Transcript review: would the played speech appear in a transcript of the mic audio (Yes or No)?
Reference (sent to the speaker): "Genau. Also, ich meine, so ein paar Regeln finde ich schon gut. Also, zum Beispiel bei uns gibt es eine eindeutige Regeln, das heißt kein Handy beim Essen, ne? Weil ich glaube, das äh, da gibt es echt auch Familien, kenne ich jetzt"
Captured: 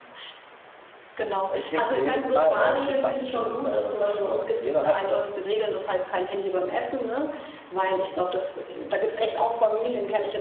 Yes